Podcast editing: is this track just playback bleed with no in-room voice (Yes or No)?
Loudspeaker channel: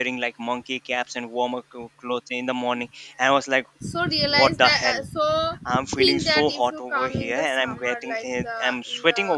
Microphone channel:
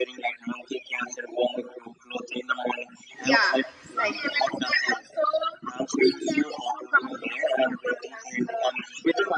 No